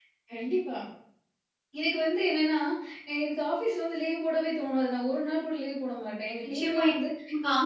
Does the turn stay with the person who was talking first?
No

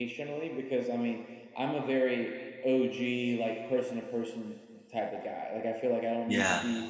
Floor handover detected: No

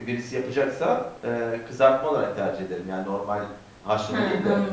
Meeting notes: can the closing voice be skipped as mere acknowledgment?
No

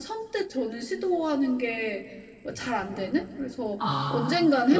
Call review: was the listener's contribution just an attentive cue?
No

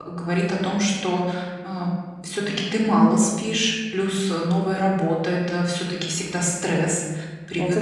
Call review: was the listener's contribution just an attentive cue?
Yes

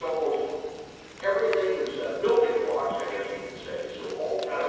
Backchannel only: No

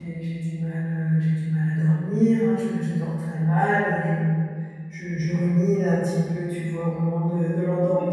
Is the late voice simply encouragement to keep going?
Yes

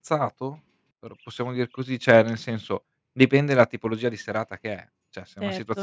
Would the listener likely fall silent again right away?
No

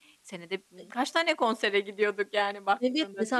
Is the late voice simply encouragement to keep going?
No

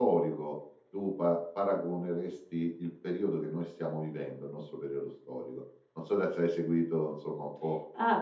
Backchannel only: No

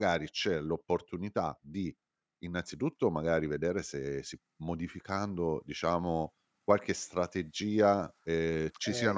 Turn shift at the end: No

